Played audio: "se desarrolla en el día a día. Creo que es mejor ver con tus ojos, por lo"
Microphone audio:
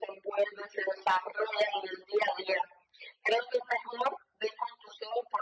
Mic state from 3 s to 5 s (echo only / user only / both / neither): echo only